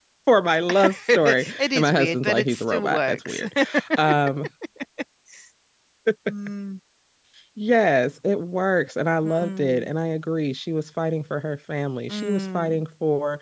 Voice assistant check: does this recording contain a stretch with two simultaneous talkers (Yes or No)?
Yes